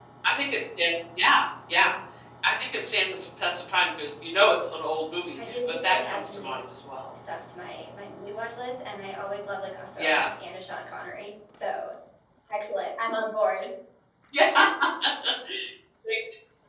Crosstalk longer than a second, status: present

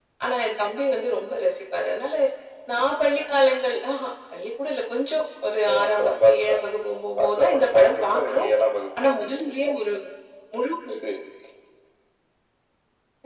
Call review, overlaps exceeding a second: present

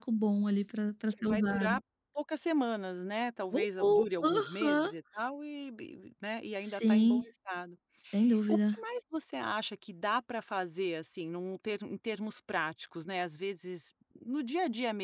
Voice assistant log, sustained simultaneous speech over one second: present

